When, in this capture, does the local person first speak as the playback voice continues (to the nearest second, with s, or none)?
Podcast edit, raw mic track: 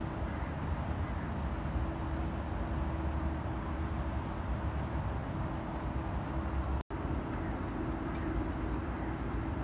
none